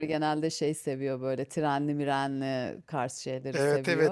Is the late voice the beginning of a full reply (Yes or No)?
Yes